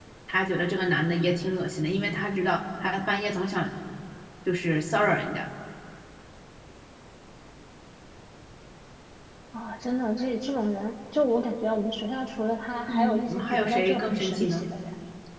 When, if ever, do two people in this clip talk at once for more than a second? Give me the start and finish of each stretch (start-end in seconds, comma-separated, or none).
12.9-14.6